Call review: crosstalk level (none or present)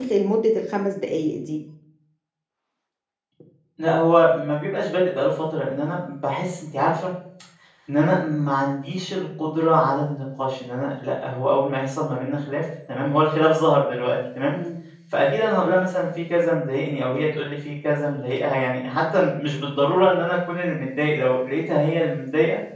none